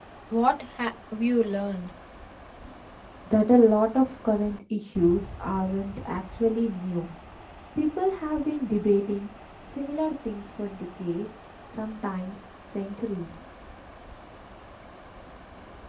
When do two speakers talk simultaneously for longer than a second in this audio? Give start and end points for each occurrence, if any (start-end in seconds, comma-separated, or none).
none